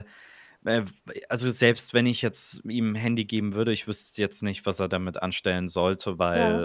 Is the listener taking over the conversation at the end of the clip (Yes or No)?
No